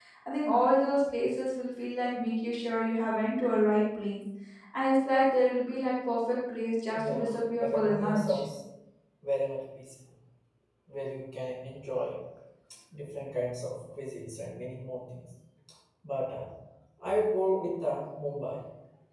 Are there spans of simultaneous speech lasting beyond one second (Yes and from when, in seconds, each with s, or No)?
Yes, from 7.0 s